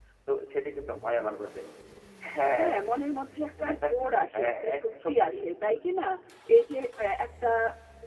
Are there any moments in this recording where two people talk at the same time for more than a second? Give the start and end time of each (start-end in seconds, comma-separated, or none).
4.3-5.8